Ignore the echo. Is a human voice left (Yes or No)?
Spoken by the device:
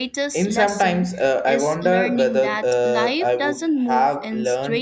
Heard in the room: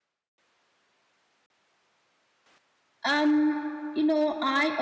Yes